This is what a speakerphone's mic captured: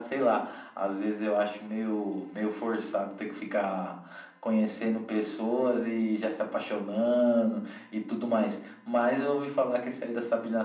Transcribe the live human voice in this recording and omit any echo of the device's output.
none

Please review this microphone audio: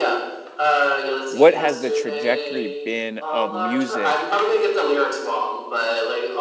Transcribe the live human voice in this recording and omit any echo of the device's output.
what has the trajectory been of music

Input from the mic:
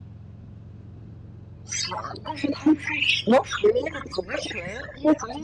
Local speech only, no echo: none

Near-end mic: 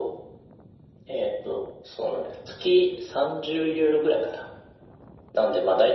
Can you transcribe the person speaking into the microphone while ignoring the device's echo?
none

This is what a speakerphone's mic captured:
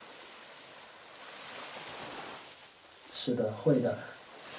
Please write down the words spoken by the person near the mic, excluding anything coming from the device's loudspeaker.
是的，会的。

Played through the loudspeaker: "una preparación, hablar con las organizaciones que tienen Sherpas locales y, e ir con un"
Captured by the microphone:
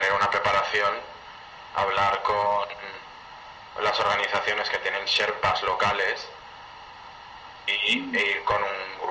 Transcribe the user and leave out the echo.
Mm.

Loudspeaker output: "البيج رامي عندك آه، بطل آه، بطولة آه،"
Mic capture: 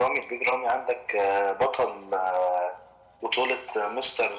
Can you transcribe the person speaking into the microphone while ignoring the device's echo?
none

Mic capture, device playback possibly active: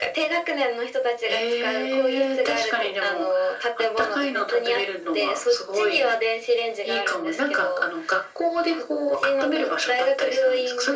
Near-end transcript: none

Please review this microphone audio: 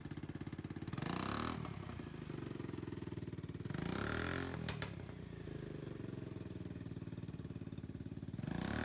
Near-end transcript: none

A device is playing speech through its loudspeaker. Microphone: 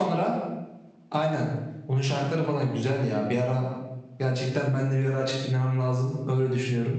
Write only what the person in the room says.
none

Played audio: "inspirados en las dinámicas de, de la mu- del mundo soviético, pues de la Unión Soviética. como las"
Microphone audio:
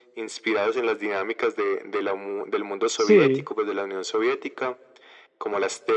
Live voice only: Sí,

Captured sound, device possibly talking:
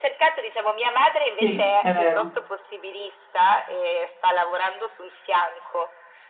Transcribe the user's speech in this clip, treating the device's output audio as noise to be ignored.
Sì, è vero.

